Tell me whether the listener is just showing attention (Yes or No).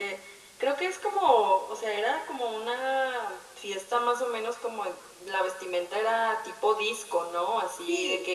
Yes